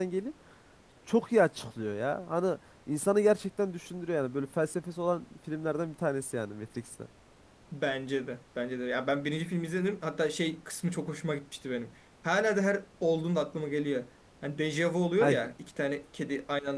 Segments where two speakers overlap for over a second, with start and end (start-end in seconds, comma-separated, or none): none